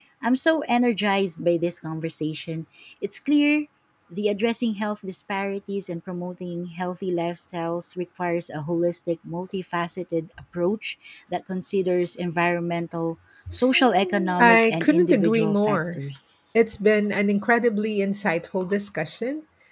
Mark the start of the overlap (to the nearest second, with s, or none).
14 s